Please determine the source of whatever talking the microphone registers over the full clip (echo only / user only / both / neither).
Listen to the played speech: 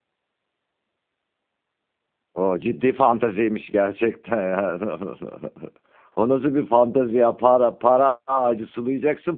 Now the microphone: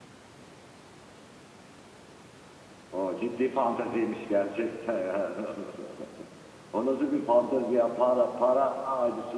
echo only